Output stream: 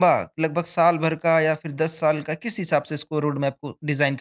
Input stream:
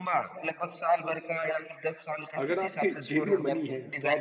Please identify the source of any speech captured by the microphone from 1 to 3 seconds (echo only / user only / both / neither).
both